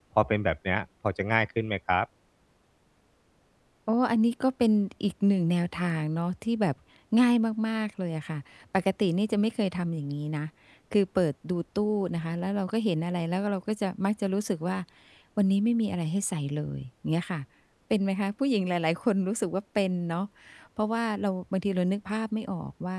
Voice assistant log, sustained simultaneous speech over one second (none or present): none